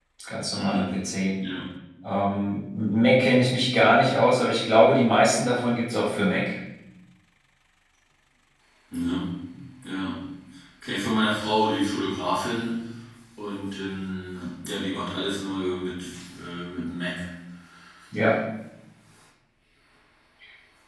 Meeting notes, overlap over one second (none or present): none